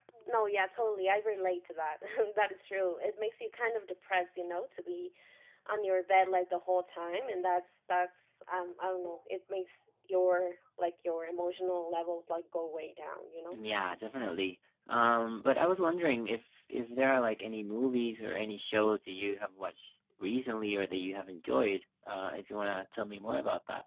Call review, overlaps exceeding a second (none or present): none